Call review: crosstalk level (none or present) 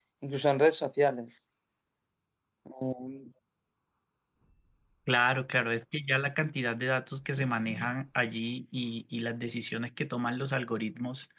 none